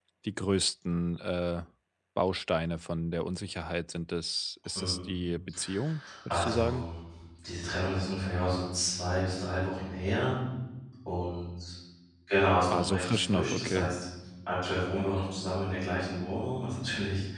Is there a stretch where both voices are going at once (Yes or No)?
Yes